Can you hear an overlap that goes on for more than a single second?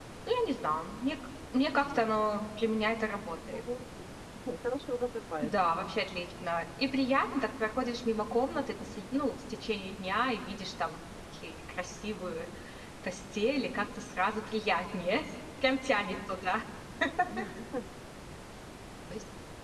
No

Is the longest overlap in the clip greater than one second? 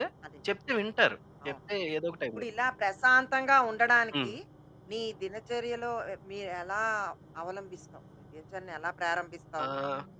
No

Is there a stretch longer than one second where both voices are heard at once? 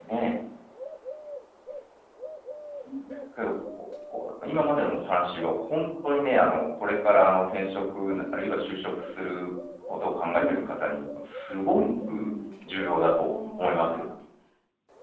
Yes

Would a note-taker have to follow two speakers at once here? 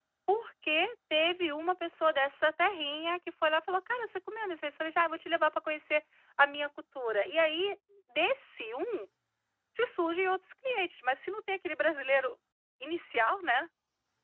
No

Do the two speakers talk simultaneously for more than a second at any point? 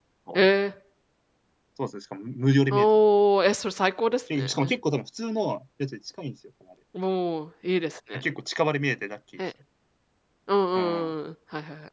No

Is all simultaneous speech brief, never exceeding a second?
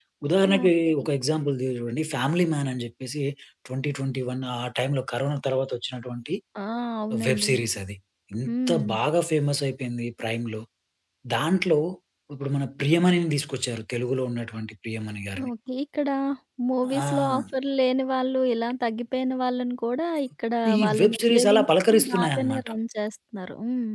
No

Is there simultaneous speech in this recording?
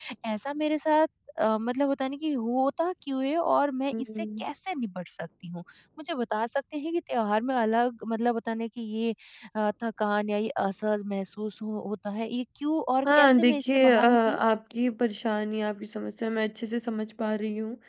Yes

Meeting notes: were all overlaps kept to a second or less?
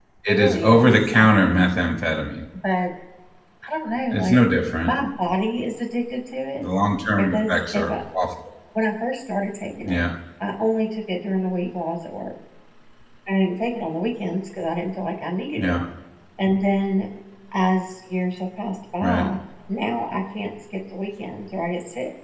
No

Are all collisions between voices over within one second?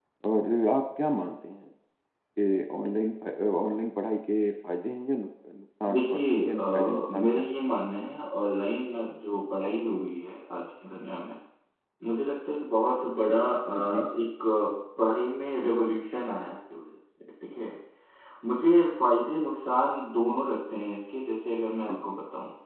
No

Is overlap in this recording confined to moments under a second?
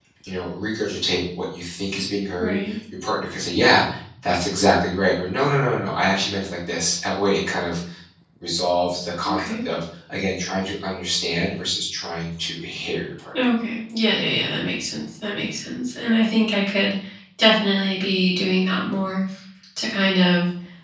Yes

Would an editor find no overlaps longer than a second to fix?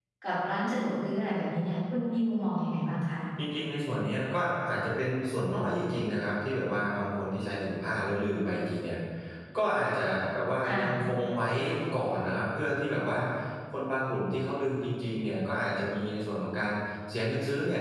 Yes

